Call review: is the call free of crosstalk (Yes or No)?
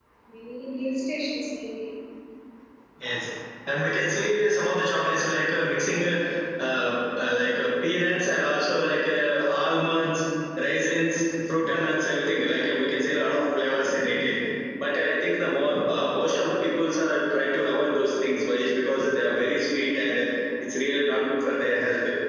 Yes